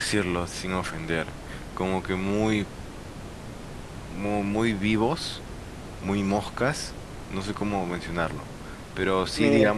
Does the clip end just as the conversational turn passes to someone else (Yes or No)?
No